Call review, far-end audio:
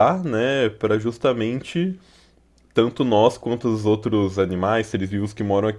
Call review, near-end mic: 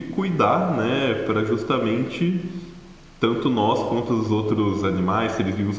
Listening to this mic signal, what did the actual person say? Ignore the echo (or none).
none